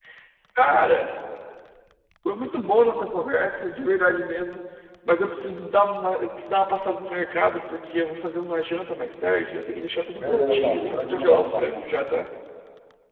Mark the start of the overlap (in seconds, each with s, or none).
10.2 s